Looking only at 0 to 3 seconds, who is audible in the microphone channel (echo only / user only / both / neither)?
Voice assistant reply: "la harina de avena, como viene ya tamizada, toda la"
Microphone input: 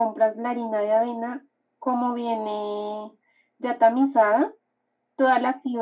echo only